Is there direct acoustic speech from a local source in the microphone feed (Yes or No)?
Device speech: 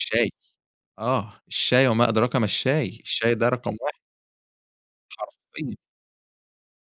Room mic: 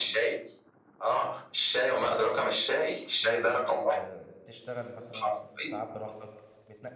Yes